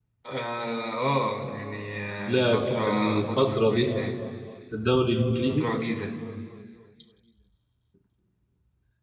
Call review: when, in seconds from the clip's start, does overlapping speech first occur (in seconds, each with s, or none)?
2.3 s